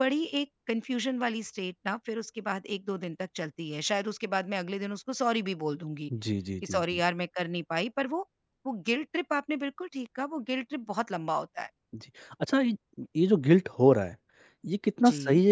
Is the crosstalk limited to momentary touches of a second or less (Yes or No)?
Yes